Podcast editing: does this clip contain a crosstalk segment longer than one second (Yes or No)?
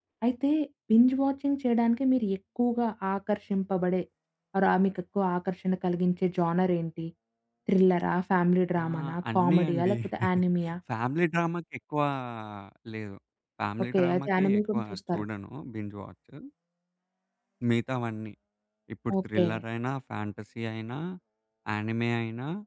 Yes